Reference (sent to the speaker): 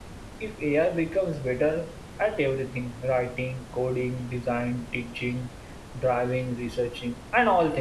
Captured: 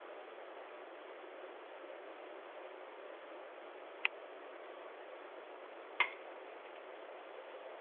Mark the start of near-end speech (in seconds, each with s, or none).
none